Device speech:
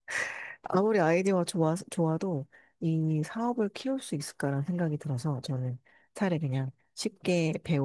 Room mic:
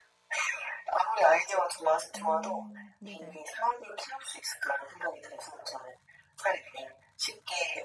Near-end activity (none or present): present